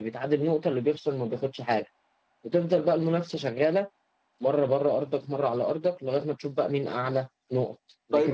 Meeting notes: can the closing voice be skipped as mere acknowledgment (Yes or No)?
No